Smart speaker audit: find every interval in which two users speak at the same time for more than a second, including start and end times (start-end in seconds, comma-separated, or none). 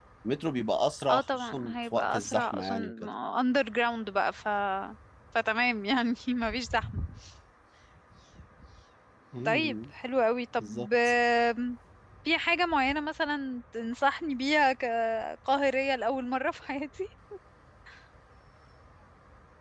1.1-2.9